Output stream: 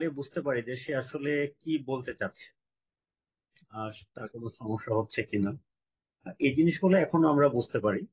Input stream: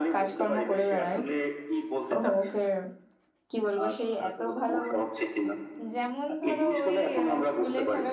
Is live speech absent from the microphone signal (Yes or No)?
No